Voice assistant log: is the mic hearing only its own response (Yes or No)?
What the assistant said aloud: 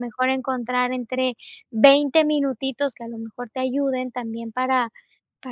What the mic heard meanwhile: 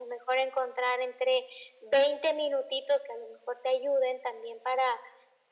Yes